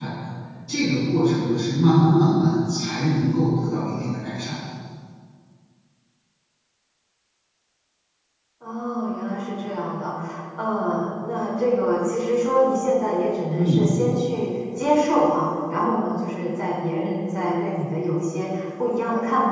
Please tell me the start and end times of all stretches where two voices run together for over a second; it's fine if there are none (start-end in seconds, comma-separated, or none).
none